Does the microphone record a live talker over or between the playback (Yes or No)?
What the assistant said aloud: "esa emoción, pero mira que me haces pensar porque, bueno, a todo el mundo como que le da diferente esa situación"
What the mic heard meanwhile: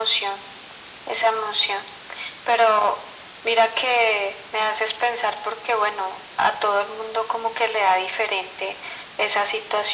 No